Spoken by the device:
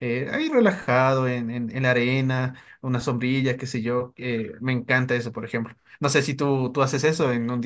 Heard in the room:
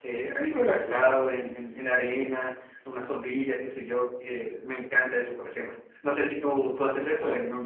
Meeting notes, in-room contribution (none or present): present